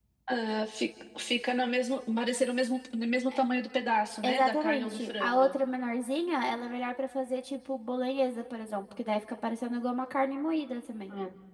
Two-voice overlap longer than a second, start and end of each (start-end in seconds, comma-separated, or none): 4.3-5.5